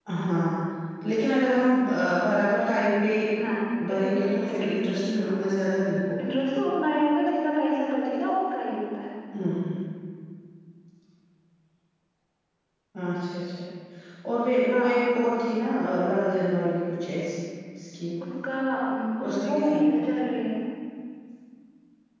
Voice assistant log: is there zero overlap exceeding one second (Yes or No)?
No